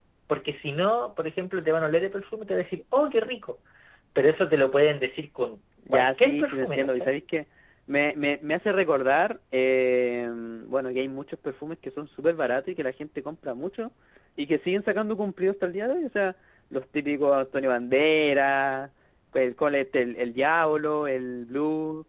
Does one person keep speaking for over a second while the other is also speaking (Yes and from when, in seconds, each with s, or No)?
Yes, from 5.8 s